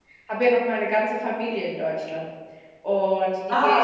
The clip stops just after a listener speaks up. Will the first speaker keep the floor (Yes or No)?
Yes